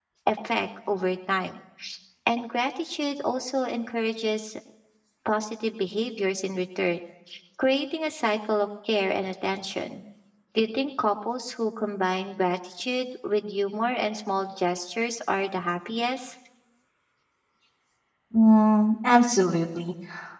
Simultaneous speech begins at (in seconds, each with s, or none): none